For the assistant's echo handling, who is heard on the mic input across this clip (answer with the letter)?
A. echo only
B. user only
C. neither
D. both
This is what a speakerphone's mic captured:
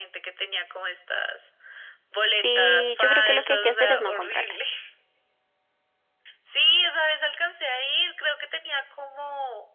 D